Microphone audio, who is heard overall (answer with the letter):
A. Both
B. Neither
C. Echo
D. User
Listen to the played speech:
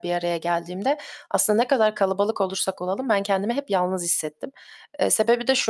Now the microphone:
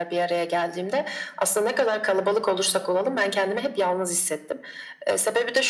C